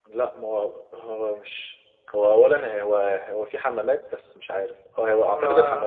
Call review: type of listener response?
listening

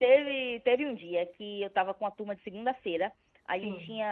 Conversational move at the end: listening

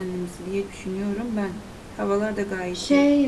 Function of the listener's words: taking over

